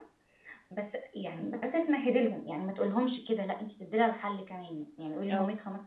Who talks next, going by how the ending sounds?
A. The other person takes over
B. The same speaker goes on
B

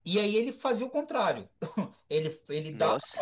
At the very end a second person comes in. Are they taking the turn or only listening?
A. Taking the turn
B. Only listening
B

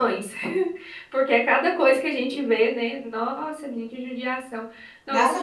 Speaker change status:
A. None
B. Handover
A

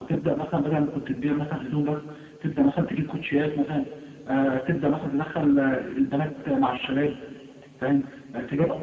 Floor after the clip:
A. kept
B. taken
A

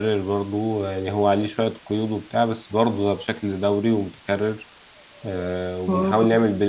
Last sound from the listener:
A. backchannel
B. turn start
A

